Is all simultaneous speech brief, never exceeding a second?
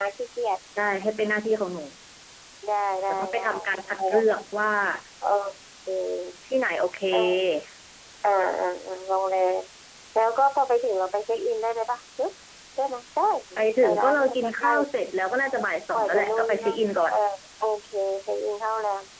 No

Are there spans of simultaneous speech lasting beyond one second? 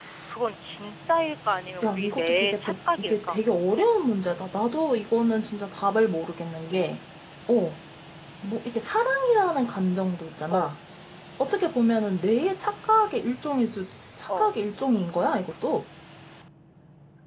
Yes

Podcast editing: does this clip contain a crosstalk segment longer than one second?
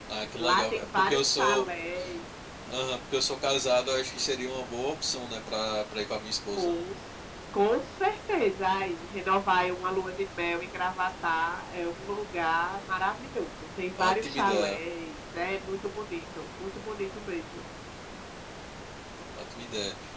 Yes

